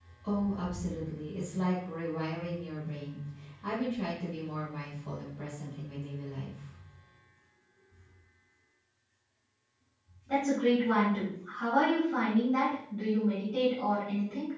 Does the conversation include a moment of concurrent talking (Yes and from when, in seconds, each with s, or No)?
No